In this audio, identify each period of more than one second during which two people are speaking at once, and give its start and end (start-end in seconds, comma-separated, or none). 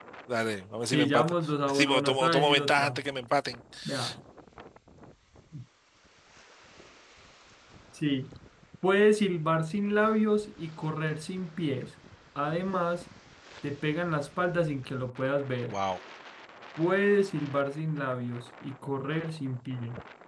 1.7-3.0